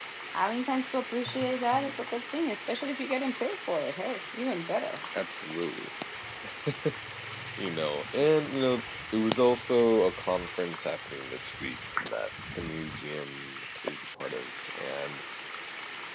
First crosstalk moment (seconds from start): none

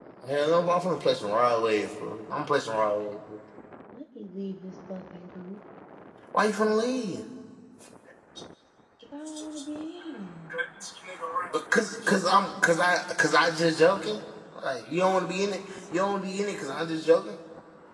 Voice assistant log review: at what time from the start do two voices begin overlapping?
none

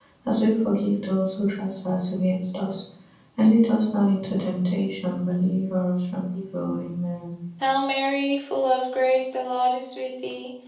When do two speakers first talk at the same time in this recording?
none

